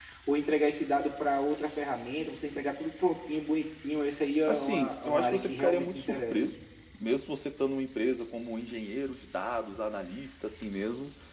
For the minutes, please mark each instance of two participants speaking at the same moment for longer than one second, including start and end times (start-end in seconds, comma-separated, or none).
4.5-6.4